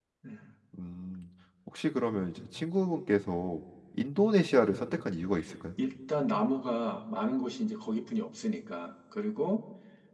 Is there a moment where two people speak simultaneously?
No

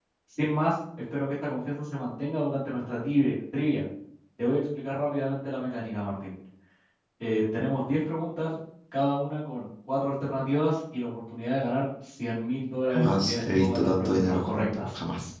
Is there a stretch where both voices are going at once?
Yes, from 12.9 s

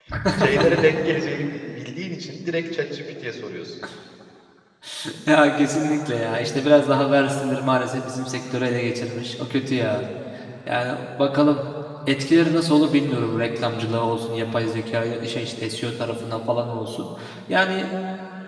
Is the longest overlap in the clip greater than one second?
No

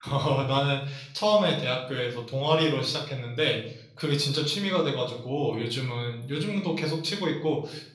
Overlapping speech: No

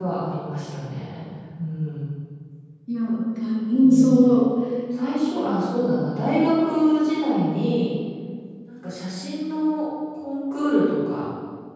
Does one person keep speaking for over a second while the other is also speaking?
No

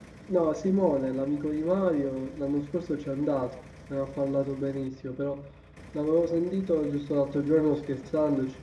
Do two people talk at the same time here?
No

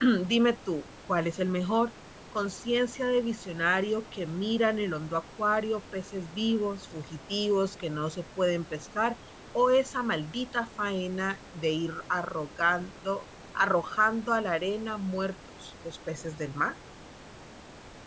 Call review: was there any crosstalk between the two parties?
No

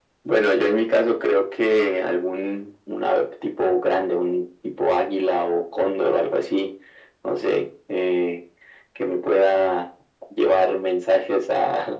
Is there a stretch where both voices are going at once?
No

